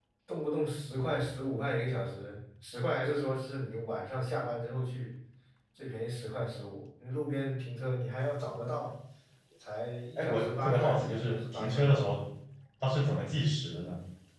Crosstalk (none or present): present